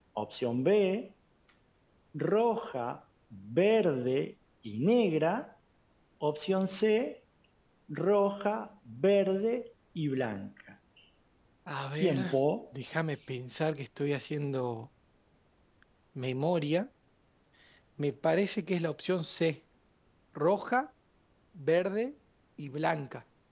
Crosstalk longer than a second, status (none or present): none